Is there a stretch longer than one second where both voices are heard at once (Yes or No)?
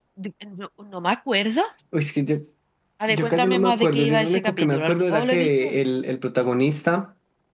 Yes